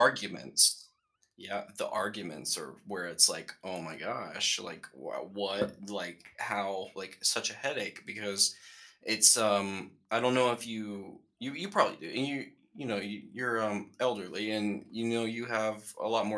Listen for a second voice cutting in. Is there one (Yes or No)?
No